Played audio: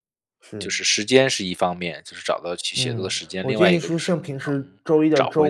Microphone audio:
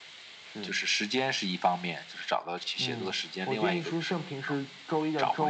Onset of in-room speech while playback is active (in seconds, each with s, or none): none